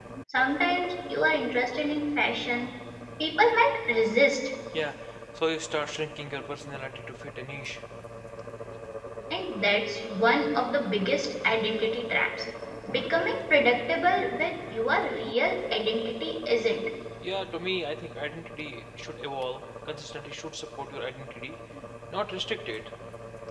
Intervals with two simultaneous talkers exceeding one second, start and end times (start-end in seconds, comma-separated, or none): none